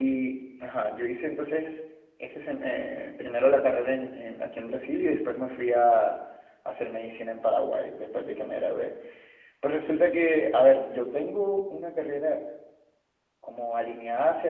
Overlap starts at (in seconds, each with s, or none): none